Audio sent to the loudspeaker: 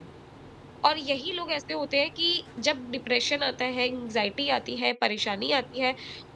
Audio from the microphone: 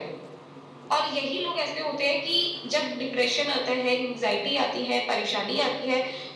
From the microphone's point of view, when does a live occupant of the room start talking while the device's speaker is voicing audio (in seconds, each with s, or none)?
none